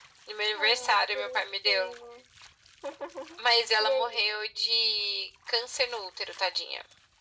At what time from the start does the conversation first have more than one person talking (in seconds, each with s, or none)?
0.6 s